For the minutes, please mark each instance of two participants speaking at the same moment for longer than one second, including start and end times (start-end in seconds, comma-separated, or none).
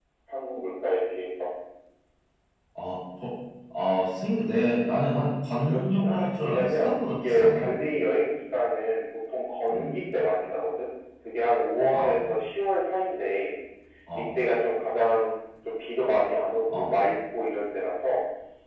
5.7-7.7